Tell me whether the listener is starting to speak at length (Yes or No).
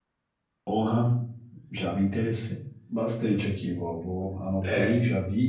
No